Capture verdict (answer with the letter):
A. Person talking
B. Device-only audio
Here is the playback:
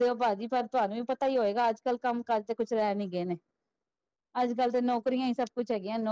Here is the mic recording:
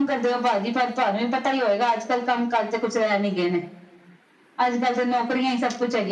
B